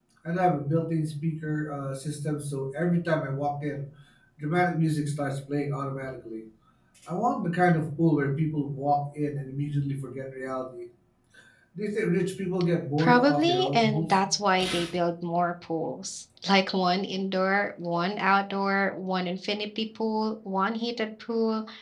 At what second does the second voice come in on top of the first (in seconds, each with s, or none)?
13.0 s